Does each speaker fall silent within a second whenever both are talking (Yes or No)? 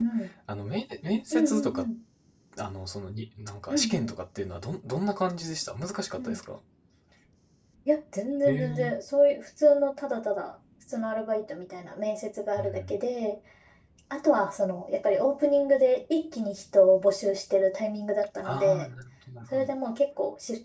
Yes